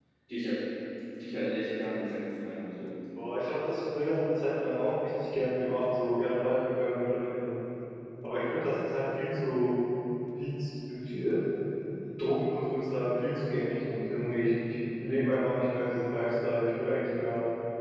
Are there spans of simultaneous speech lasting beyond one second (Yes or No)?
No